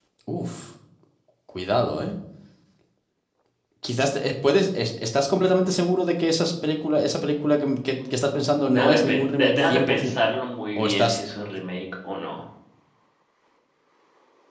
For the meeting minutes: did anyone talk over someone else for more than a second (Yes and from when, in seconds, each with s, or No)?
Yes, from 8.7 s